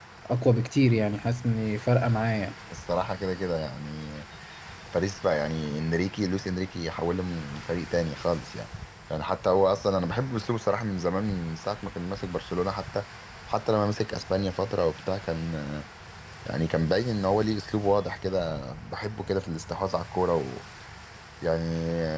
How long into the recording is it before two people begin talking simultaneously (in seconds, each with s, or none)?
none